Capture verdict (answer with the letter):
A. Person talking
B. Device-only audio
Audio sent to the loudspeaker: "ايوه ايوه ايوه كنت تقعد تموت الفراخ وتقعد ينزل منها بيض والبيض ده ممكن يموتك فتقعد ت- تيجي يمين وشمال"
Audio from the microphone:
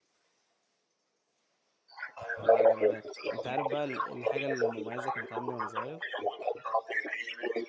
A